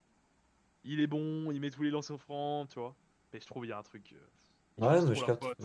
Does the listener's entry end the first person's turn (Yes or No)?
Yes